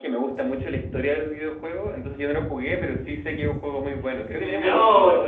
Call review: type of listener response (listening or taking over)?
taking over